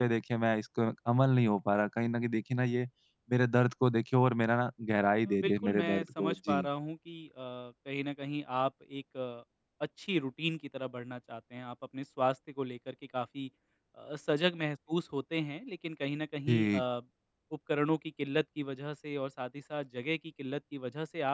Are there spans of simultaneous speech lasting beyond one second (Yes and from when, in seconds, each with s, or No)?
Yes, from 5.4 s